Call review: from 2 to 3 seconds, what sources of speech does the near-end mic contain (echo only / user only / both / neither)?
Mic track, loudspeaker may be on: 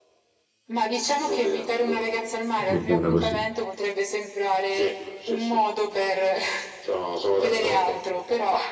both